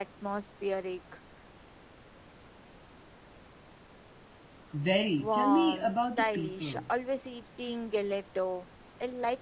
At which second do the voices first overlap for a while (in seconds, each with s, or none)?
5.2 s